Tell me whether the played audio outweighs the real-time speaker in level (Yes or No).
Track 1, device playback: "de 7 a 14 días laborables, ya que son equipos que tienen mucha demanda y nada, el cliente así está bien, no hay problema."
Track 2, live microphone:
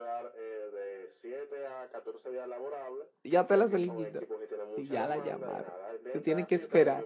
No